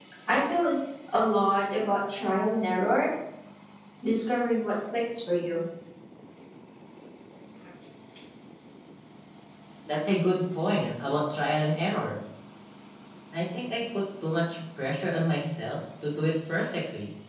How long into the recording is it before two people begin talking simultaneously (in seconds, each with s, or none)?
none